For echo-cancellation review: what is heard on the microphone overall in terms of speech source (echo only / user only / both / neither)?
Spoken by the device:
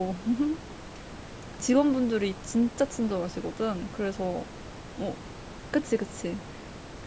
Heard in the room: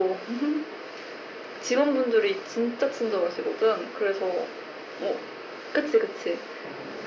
echo only